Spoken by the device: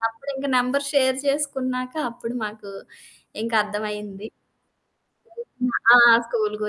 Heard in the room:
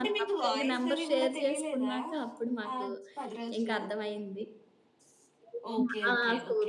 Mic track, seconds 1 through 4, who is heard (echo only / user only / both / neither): both